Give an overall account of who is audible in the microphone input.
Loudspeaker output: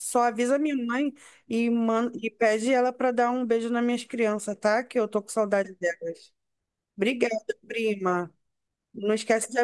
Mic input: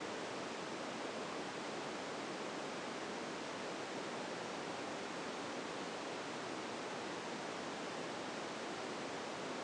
neither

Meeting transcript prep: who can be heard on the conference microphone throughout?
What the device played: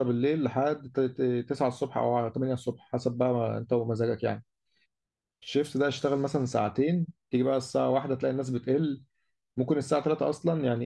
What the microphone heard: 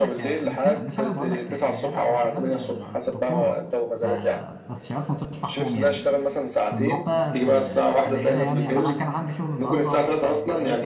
both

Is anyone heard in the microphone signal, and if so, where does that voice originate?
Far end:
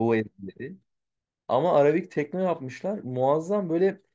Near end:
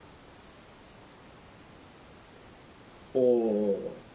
user only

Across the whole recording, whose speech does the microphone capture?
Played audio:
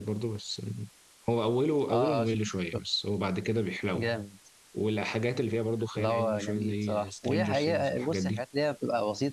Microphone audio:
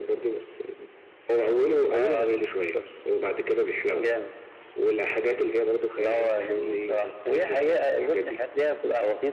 echo only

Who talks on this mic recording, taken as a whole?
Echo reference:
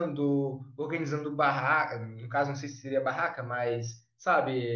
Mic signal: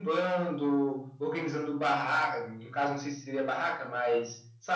echo only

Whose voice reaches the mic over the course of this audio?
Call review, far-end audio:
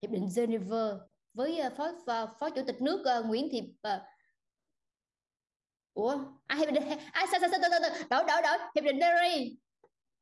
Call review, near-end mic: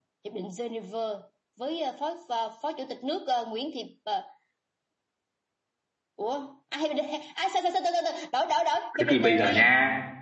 both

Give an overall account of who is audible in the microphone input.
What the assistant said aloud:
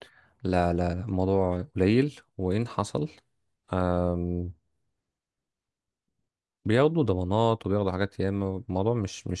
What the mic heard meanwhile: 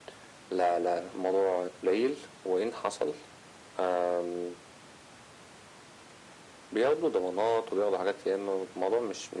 echo only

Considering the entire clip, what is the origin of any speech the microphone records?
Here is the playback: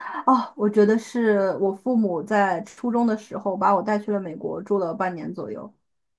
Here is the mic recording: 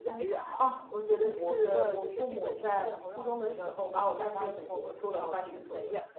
both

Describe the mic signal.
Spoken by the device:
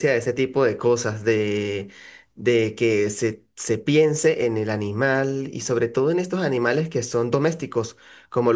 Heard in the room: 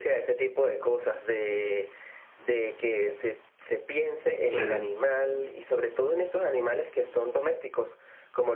both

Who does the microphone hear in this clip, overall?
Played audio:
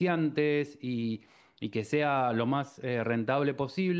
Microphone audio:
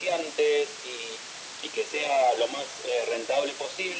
echo only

